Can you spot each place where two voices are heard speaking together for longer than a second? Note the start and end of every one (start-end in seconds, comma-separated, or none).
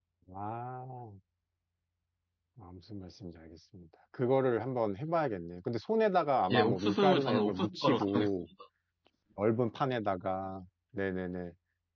6.5-8.3